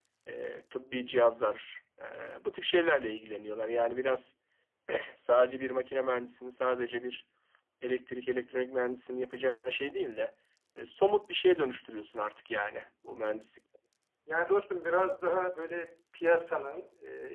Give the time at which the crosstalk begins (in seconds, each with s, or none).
none